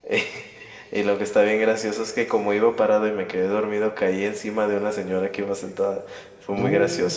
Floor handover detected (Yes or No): No